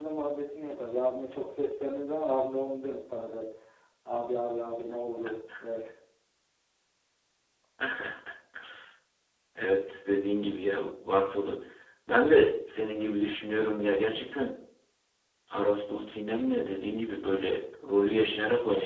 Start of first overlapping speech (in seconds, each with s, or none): none